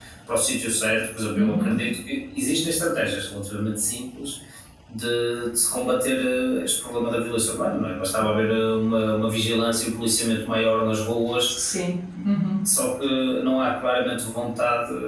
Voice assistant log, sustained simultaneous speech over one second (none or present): none